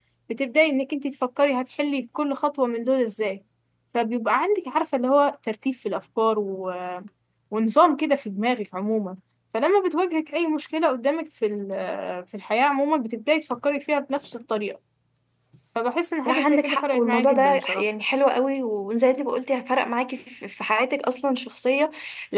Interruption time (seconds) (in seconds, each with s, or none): 16.3 s